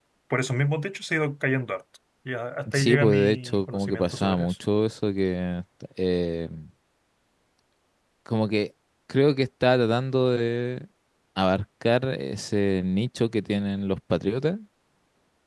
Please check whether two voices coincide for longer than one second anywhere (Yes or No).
Yes